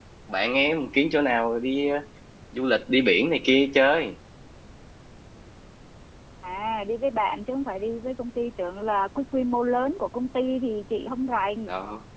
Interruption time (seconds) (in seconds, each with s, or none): none